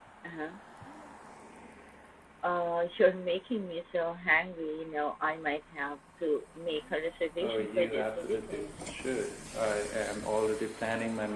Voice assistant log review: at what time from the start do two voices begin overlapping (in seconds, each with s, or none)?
7.4 s